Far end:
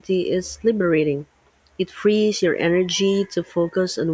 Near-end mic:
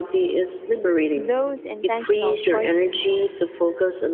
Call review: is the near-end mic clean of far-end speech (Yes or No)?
No